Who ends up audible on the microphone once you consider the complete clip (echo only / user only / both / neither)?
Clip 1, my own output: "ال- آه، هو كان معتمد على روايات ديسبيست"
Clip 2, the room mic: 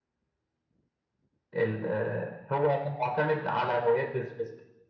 echo only